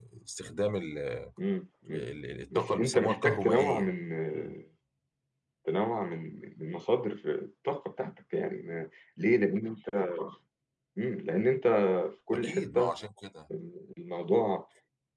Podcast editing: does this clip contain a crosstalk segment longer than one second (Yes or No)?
Yes